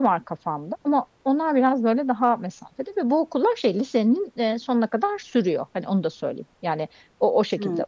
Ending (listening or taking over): listening